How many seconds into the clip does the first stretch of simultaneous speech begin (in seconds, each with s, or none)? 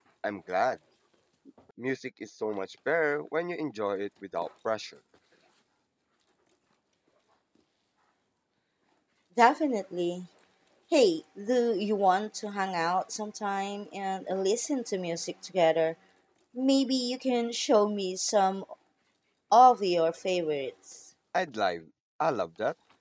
none